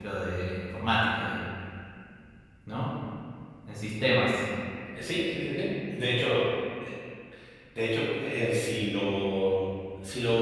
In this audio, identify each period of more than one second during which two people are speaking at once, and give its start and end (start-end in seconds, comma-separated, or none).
none